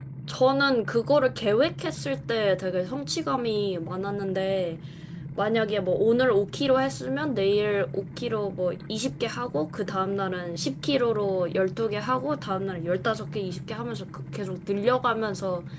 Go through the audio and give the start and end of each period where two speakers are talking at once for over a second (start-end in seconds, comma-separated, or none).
none